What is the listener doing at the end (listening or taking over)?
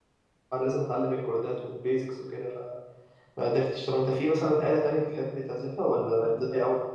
taking over